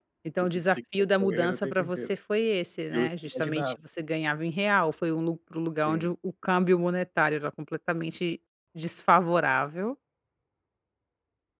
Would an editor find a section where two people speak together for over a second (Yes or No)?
Yes